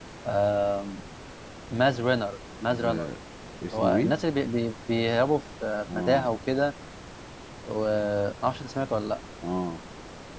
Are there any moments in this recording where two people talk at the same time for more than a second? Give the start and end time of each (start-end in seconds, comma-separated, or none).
none